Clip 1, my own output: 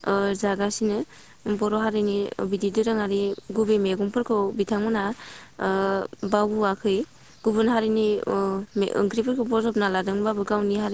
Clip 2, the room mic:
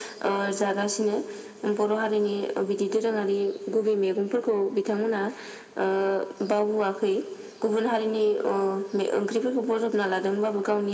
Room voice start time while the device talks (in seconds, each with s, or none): none